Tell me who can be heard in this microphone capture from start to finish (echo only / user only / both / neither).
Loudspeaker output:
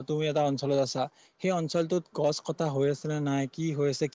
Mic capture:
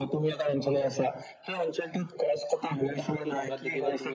both